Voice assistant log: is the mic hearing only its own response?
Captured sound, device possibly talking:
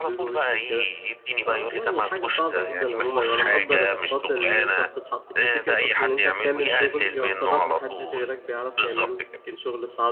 No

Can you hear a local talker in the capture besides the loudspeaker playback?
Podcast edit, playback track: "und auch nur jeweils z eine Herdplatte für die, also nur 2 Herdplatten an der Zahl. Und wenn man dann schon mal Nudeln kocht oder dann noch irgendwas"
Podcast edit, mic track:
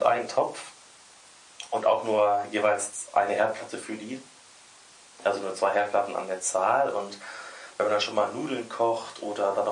No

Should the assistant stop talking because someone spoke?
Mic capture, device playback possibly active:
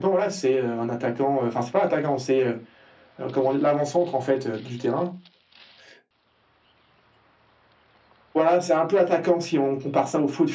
No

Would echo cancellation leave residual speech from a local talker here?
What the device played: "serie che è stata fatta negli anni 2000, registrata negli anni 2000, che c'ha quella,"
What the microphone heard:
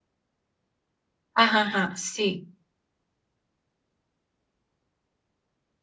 Yes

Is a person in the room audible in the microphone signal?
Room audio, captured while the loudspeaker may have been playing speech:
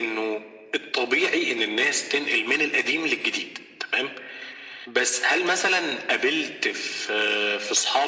No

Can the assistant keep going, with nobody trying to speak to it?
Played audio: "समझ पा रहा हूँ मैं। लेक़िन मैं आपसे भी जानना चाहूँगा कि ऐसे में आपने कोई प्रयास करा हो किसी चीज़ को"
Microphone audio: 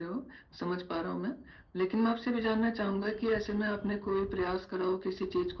Yes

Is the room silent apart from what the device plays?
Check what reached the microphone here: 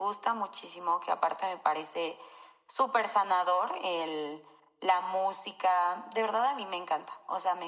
Yes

